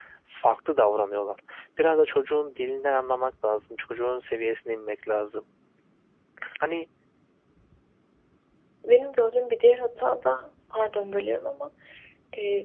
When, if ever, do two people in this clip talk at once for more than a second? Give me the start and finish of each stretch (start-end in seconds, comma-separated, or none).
none